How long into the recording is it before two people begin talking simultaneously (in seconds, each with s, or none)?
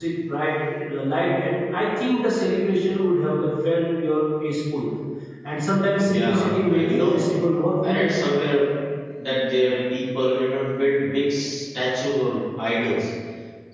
6.0 s